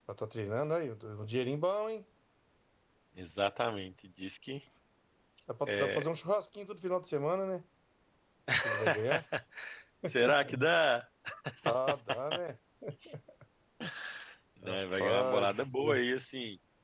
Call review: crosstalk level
present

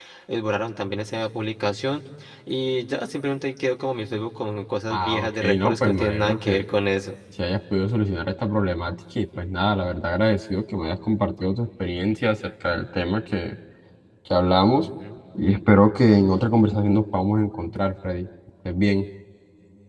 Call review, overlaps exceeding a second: present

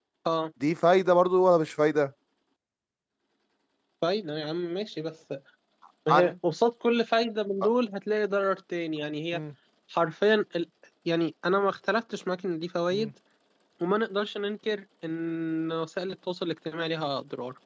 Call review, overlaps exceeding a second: none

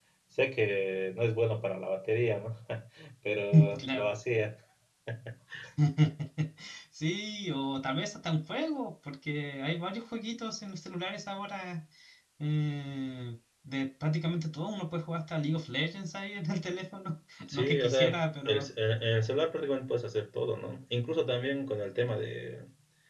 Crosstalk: present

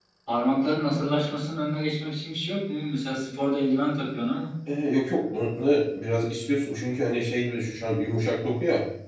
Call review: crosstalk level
none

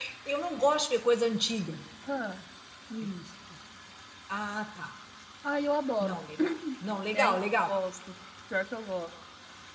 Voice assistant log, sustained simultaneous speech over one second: none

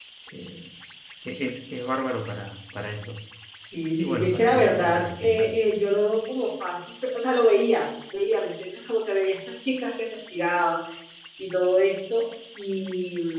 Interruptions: present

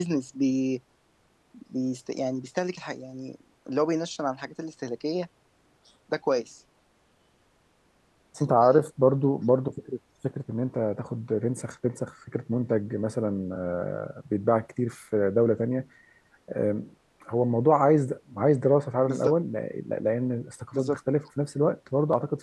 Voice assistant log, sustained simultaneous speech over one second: none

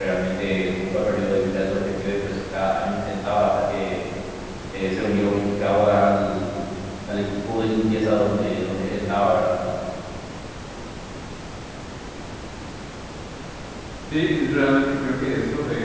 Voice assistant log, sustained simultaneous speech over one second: none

